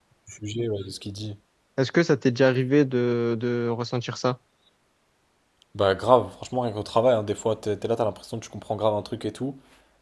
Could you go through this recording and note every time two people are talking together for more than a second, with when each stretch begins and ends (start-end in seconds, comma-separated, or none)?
none